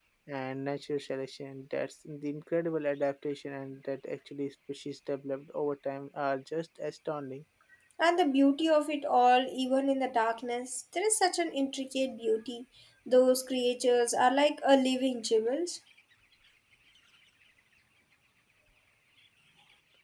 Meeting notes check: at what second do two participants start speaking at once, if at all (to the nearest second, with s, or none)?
none